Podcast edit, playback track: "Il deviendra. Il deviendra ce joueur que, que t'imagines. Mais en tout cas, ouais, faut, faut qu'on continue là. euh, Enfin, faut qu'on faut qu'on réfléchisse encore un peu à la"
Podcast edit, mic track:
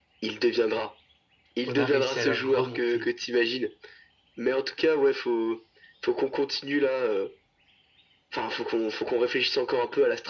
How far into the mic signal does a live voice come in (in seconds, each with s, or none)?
1.6 s